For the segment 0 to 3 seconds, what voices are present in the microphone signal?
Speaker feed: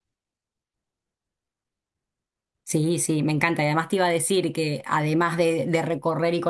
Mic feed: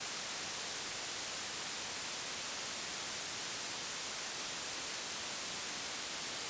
neither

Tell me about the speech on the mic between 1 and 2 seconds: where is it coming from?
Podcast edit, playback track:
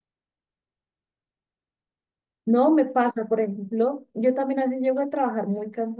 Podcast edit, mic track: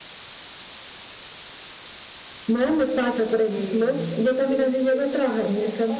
neither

